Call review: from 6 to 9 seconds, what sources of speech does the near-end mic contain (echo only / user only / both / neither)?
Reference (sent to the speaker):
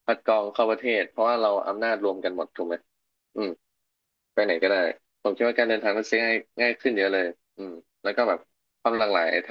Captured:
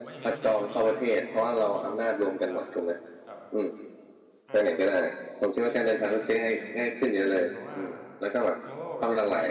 both